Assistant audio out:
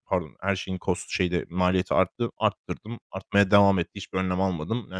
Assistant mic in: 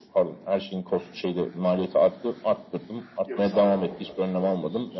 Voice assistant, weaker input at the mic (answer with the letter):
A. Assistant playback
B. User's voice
B